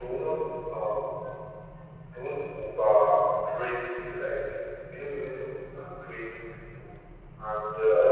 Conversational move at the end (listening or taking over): listening